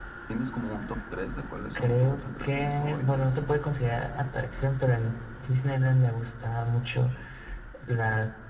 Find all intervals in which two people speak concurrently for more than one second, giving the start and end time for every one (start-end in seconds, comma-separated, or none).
1.8-3.2